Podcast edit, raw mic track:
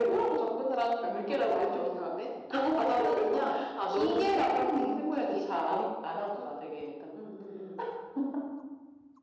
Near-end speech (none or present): none